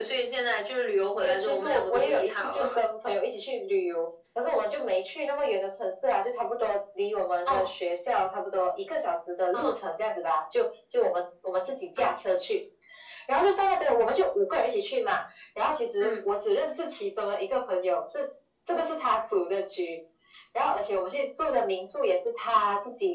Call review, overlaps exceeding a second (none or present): present